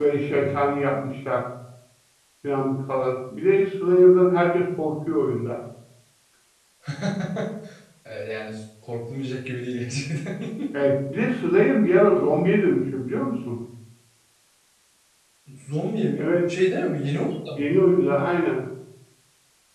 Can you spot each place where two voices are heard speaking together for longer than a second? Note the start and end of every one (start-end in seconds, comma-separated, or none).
none